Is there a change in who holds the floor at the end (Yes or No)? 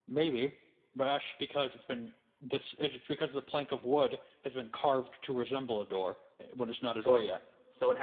Yes